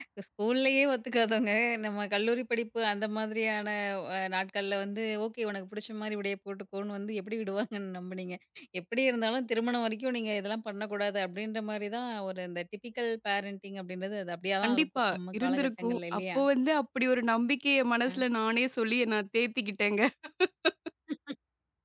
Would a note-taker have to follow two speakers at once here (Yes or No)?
Yes